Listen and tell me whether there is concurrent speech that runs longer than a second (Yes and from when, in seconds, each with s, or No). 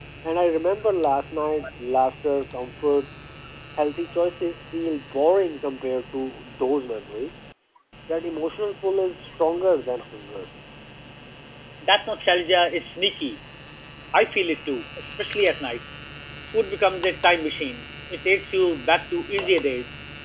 No